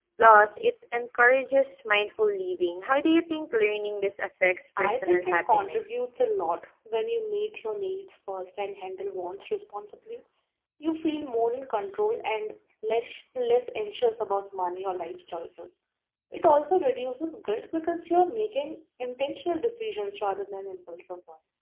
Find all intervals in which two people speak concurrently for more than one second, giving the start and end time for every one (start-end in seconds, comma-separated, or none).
4.8-6.0